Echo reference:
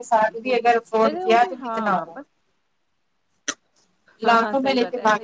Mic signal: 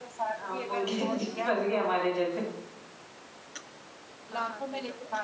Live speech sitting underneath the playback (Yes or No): No